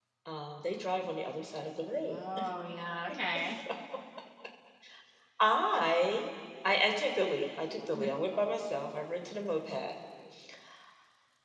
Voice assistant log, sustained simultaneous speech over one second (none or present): none